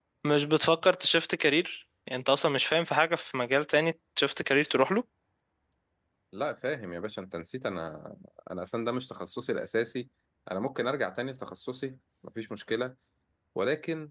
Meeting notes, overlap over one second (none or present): none